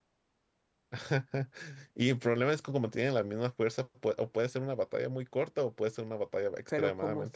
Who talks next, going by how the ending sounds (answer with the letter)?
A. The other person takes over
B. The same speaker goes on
A